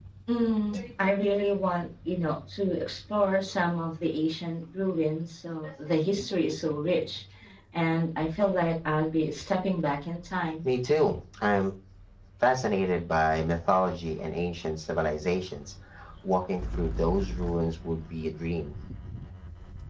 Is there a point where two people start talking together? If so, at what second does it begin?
none

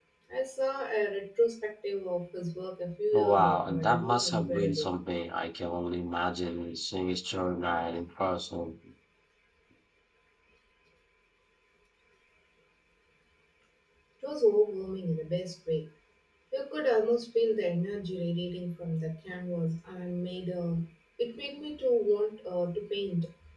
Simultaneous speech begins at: 3 s

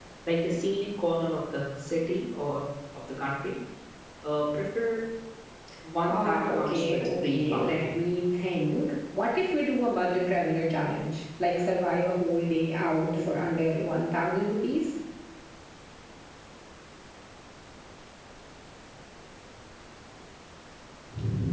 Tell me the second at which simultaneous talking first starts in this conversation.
6 s

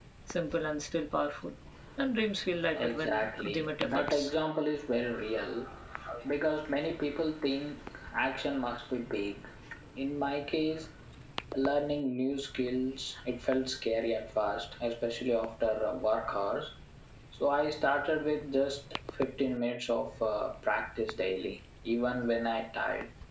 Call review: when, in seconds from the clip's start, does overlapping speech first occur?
3 s

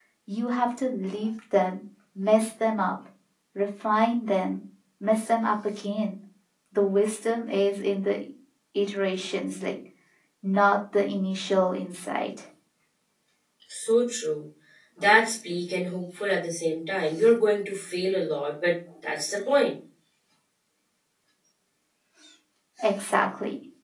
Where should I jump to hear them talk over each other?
none

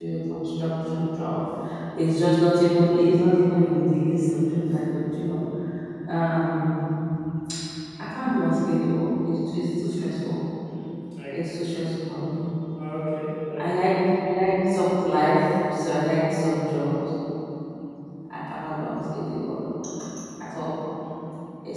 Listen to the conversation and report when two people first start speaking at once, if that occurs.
none

